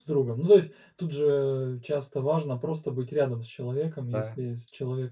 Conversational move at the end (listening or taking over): listening